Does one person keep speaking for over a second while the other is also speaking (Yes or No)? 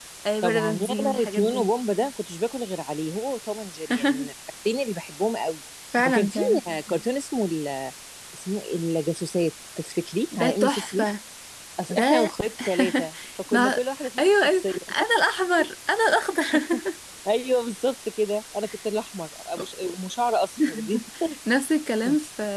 Yes